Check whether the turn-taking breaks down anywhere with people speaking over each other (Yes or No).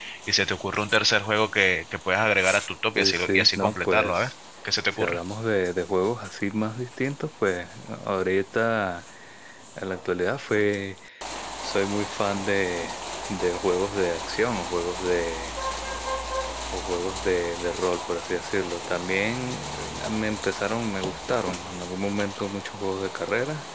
Yes